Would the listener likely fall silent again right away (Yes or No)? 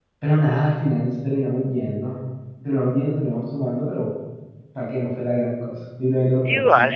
No